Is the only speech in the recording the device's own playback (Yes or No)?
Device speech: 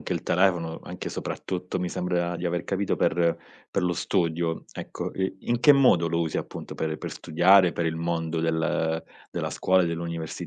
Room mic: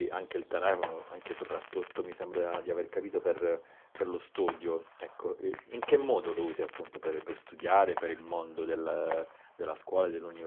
Yes